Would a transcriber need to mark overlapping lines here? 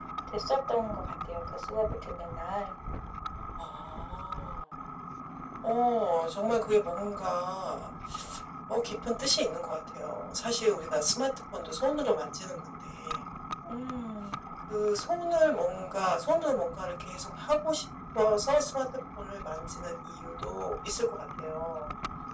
No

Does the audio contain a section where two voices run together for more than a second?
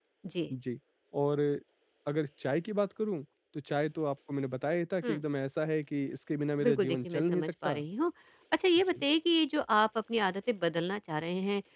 Yes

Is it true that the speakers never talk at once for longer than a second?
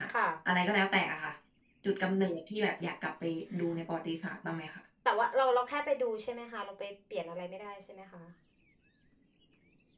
Yes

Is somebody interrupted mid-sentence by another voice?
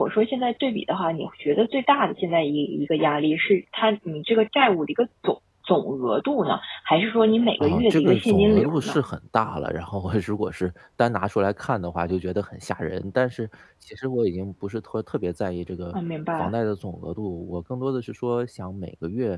Yes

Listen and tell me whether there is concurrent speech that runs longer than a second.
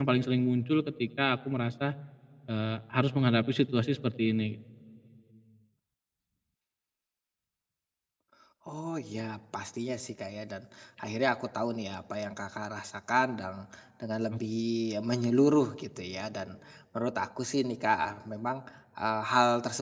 No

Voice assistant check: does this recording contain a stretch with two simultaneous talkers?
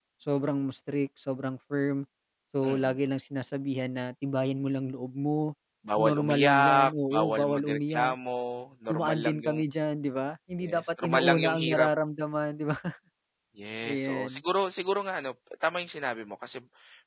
Yes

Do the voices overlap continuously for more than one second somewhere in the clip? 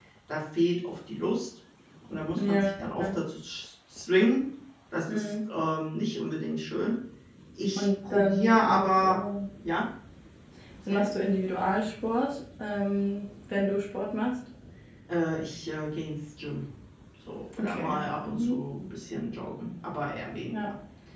Yes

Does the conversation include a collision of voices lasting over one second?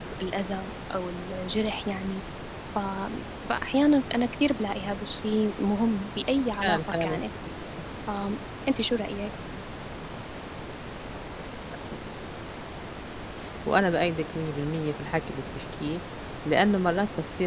No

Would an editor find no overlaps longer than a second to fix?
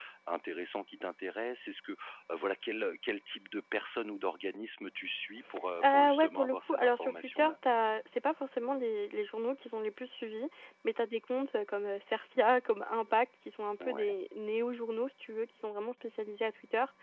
No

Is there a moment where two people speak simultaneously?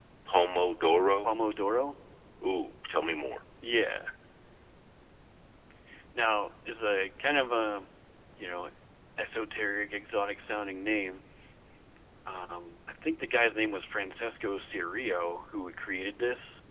No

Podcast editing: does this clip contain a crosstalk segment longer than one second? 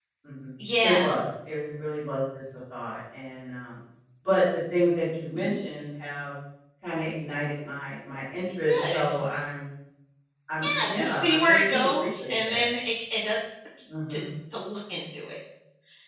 Yes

